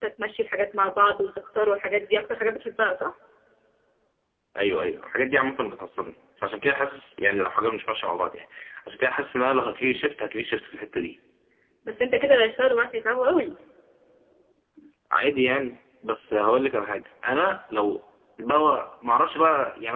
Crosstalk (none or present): none